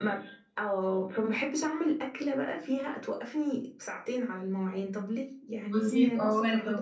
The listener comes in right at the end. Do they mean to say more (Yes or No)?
Yes